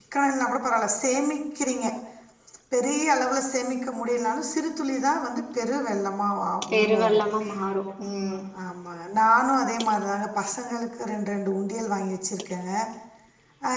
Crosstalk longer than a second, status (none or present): none